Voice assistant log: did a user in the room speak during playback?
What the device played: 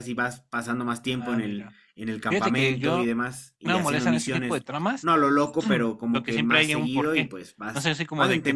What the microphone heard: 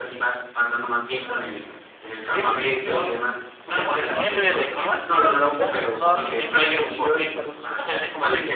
Yes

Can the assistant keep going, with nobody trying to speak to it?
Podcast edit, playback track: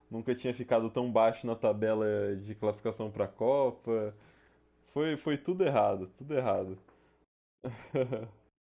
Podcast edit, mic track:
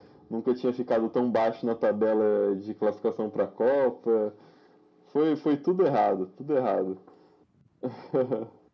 Yes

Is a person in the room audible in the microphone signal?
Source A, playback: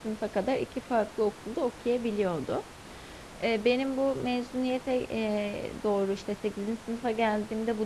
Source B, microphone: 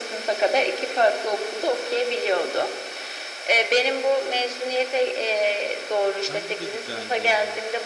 Yes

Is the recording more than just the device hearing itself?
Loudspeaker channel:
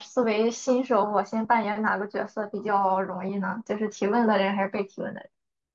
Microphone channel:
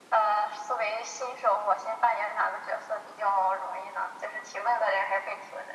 No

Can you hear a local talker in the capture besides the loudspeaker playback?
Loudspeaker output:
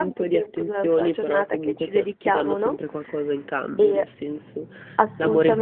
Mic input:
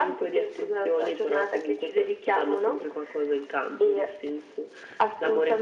No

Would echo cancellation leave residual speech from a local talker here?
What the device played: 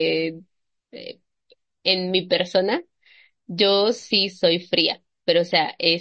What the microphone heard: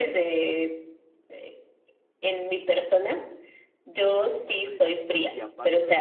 Yes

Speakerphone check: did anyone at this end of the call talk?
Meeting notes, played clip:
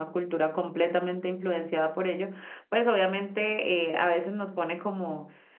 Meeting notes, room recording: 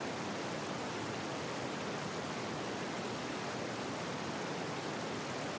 No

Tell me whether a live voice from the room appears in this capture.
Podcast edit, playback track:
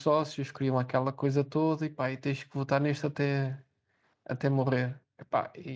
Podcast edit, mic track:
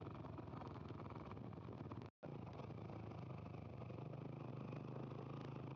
No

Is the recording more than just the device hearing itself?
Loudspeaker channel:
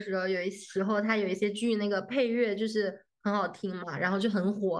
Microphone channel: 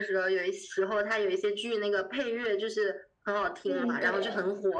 Yes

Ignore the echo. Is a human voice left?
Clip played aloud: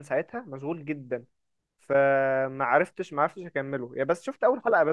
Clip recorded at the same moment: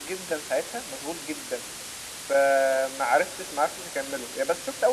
No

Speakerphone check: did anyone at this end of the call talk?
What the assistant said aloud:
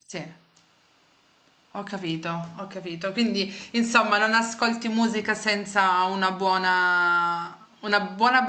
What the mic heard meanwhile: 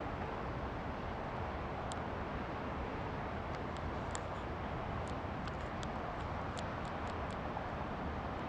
No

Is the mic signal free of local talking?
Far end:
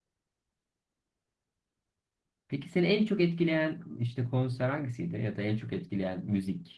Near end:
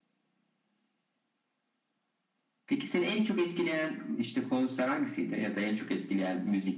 Yes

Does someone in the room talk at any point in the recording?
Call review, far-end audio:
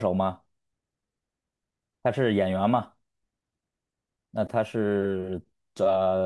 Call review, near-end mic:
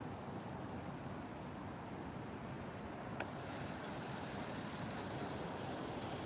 No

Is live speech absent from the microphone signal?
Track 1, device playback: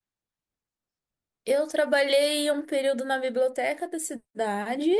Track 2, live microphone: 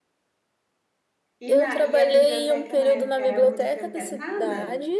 No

